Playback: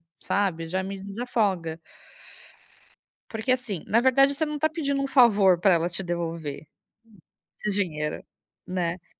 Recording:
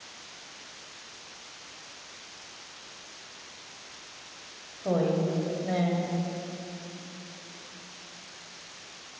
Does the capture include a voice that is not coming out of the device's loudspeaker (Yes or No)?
Yes